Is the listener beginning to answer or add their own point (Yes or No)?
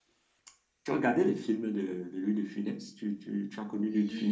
Yes